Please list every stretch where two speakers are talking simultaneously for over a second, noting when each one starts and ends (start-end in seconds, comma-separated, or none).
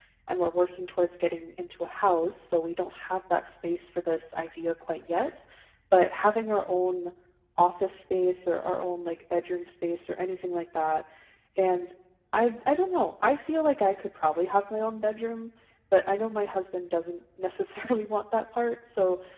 none